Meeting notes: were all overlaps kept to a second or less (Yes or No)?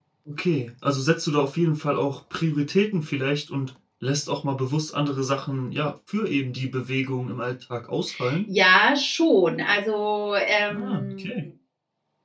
Yes